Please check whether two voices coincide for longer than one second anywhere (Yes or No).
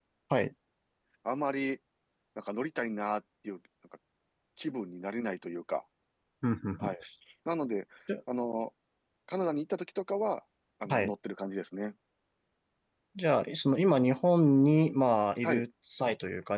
No